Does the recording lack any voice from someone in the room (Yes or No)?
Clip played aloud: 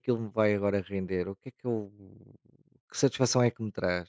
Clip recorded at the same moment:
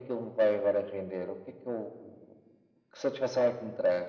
Yes